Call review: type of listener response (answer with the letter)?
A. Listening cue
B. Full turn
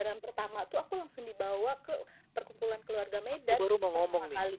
B